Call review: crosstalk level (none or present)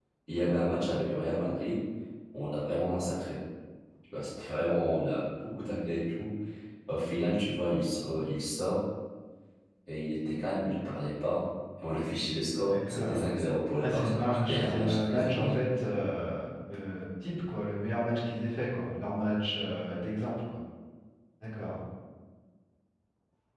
present